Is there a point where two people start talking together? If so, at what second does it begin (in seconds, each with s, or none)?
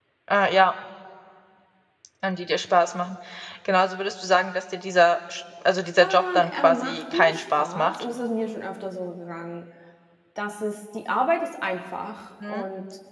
6.0 s